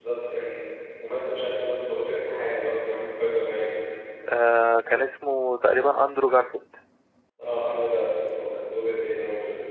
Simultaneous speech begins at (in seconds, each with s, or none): none